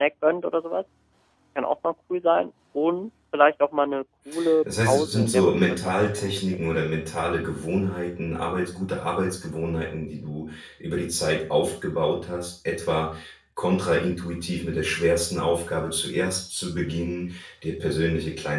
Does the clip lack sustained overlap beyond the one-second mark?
No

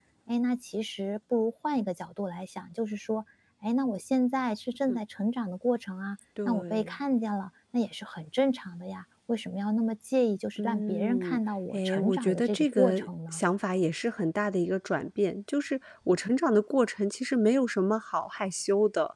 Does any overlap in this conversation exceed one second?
Yes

